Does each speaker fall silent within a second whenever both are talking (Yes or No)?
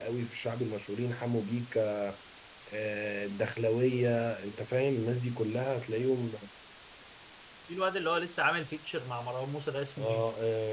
Yes